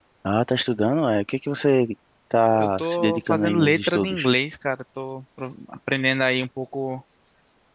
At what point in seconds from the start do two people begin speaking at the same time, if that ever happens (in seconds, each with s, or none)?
2.5 s